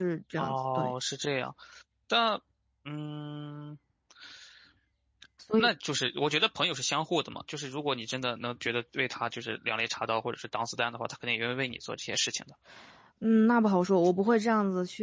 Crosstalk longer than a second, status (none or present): none